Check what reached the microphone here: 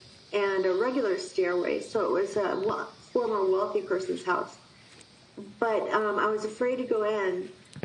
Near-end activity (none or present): none